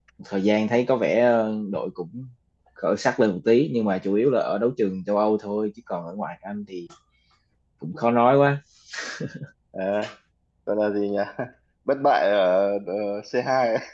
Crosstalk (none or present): none